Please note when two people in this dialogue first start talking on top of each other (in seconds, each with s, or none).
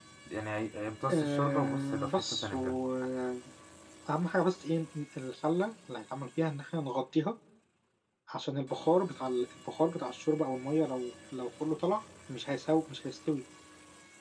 1.1 s